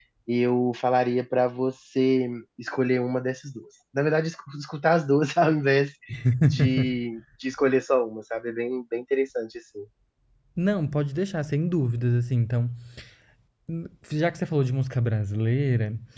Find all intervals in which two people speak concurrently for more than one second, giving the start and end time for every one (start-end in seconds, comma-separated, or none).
none